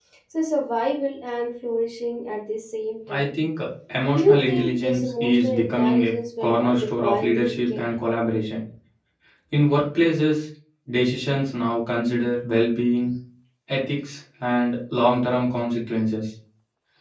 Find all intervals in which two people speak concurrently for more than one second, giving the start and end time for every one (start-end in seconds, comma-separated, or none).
4.2-7.8